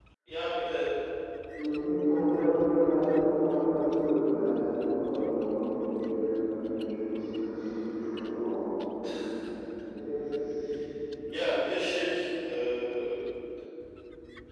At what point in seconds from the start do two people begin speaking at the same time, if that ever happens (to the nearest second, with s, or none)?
none